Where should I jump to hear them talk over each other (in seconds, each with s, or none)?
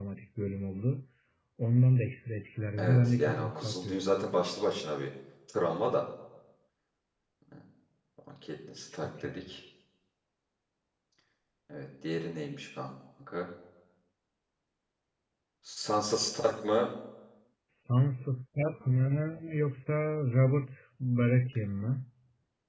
2.8 s